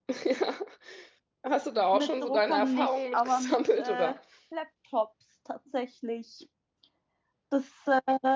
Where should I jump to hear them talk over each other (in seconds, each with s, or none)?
1.9 s